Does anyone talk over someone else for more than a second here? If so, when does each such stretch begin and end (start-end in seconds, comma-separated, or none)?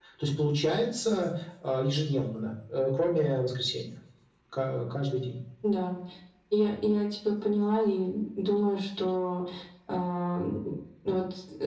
none